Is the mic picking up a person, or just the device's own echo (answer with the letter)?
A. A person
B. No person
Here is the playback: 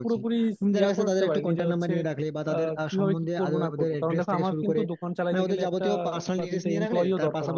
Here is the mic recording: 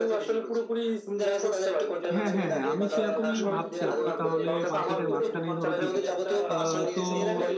A